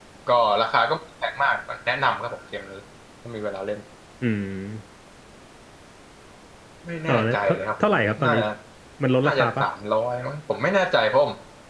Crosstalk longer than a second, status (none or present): present